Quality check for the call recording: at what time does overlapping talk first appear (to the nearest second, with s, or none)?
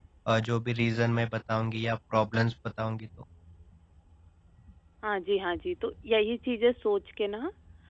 none